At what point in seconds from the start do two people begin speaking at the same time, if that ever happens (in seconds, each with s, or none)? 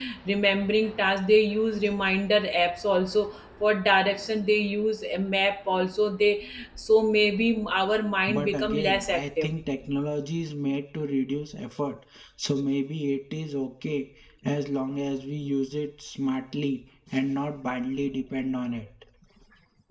8.3 s